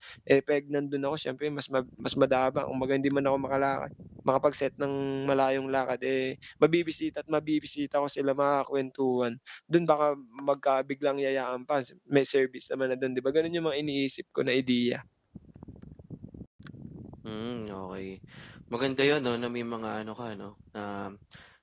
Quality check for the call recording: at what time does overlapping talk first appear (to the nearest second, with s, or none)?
none